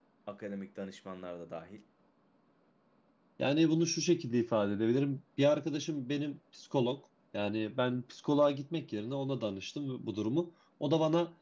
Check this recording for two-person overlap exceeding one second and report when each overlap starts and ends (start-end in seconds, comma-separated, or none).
none